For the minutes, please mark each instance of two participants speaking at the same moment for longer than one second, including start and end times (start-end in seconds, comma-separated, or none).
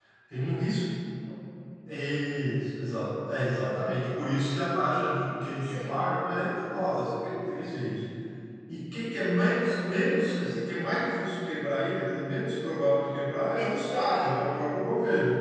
13.4-14.7